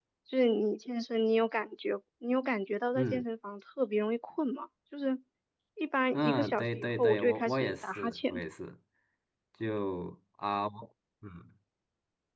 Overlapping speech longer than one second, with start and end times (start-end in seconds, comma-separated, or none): 6.1-8.4